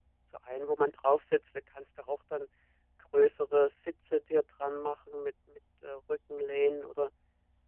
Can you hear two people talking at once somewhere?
No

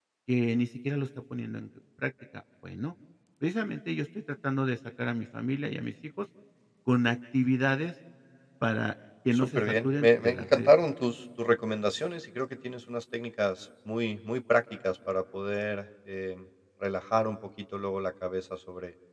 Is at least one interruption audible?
Yes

